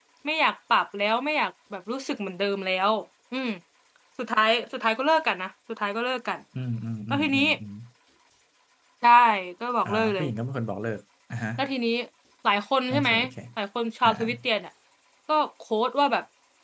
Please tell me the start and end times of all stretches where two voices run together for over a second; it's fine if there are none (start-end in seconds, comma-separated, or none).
none